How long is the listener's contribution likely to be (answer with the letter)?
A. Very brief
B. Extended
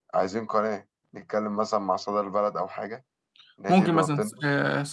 B